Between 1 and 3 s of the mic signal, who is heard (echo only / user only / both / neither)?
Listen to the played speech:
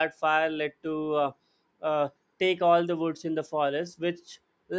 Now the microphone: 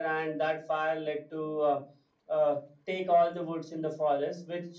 echo only